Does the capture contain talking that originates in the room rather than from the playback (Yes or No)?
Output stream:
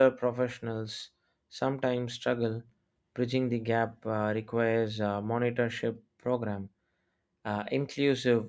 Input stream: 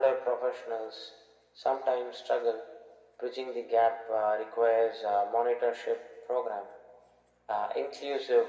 No